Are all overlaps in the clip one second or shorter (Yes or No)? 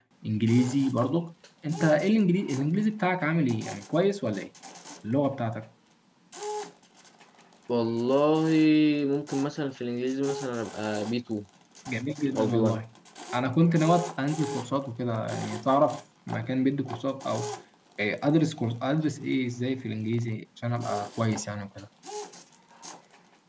Yes